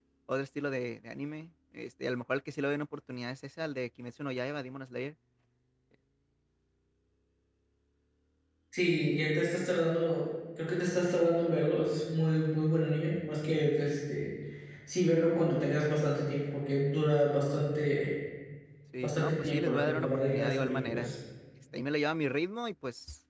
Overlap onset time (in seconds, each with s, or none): 19.0 s